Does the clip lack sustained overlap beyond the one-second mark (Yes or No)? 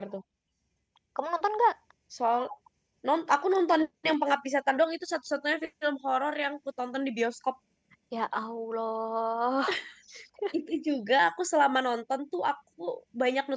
Yes